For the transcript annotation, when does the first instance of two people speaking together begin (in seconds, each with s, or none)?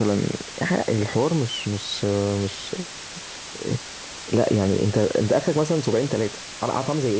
none